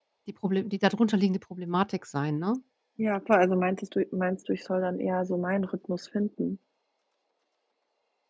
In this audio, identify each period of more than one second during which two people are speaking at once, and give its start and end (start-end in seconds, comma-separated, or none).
none